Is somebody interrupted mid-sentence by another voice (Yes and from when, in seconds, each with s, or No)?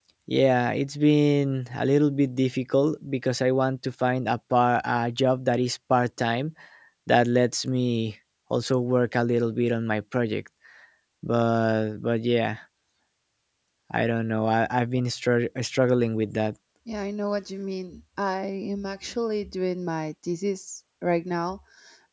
No